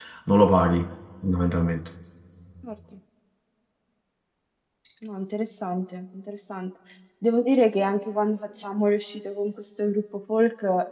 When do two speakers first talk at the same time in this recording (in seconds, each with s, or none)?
none